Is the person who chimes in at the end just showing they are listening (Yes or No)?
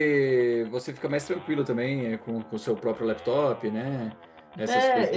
No